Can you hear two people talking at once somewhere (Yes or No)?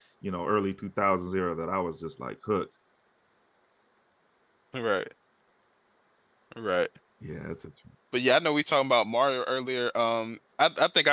No